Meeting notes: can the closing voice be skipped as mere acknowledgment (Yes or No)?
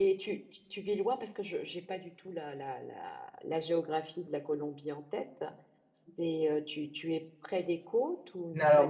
No